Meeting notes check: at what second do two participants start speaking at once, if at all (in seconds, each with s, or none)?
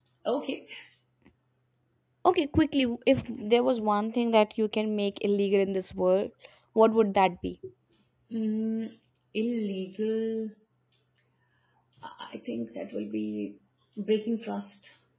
none